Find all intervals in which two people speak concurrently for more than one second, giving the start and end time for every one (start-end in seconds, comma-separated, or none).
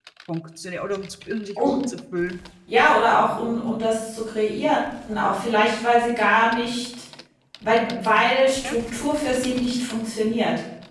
none